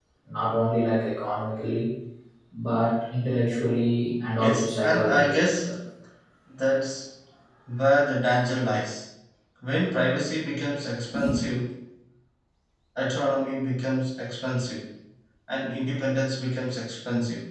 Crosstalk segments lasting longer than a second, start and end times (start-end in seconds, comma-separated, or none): 4.4-5.7